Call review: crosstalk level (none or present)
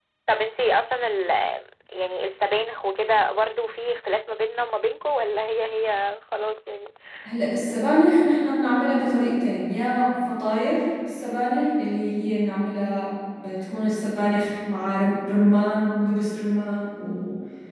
none